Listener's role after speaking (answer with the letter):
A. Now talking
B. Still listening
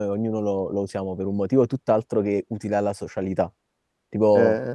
B